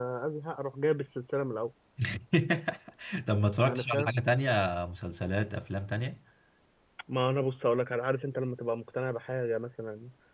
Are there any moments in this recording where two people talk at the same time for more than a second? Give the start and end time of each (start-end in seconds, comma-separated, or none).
none